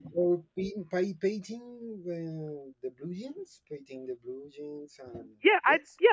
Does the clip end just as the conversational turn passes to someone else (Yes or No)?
Yes